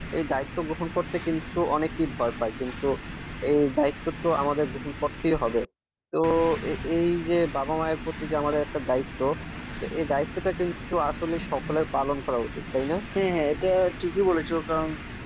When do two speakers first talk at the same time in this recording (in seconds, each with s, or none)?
none